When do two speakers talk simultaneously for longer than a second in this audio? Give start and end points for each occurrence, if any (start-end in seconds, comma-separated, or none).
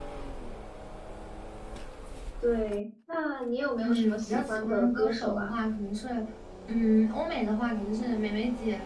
3.8-5.5